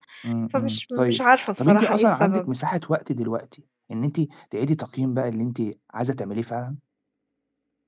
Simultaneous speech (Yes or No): Yes